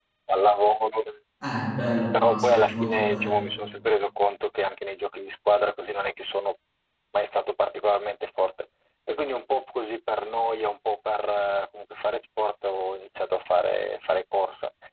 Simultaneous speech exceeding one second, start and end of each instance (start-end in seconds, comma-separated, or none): 2.1-3.3